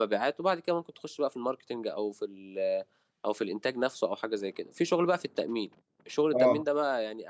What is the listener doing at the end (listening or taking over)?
listening